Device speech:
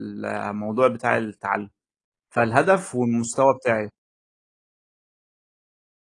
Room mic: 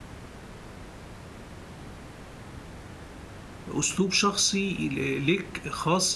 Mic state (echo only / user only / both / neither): user only